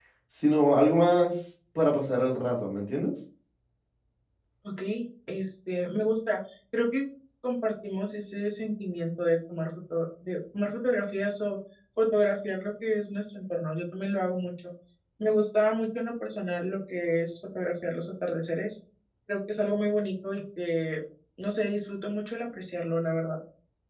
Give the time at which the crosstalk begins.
none

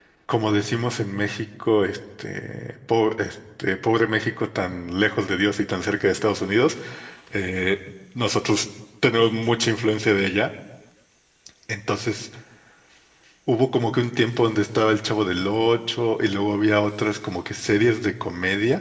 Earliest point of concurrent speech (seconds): none

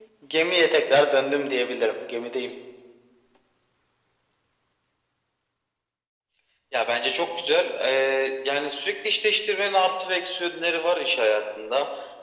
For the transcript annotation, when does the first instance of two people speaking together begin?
none

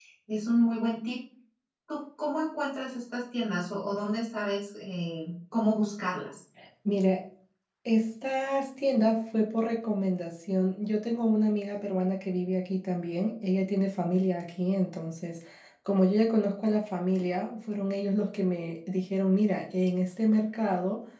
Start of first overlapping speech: none

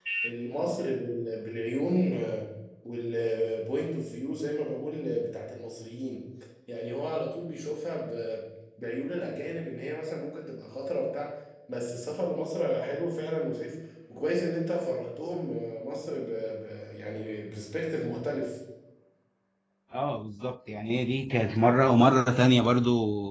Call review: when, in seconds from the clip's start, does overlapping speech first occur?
none

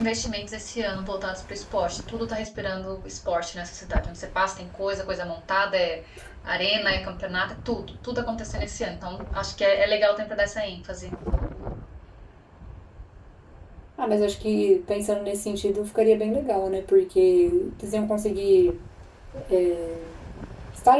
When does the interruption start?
none

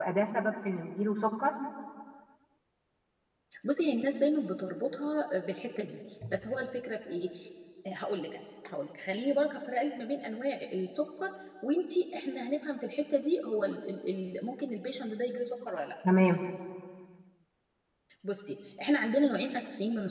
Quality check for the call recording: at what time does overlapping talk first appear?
none

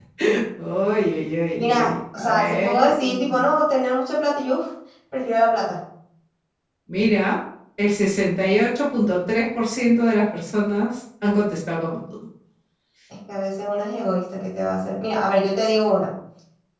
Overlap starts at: 1.6 s

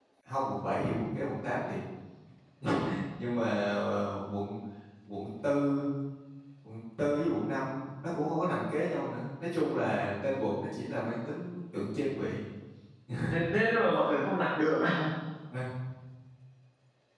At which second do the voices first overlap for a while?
none

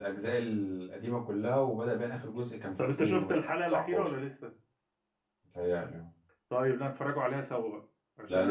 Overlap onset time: 2.8 s

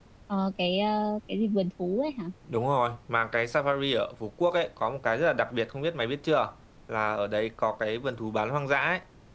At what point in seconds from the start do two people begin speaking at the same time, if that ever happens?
none

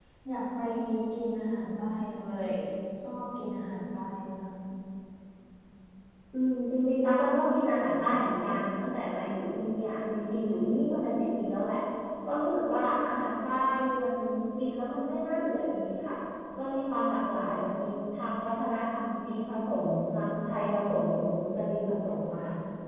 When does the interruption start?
none

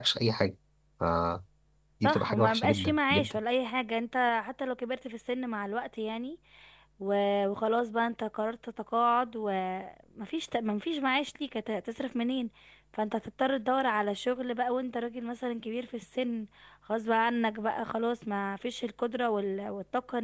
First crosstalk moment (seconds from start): 2.0 s

